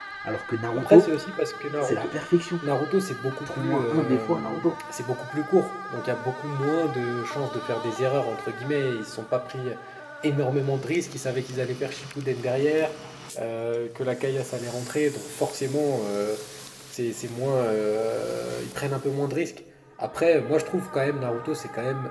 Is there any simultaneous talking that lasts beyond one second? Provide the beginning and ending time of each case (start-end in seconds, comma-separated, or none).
3.4-4.7